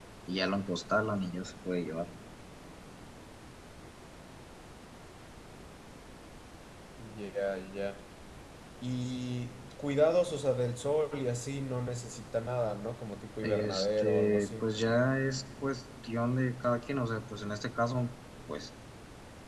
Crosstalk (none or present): present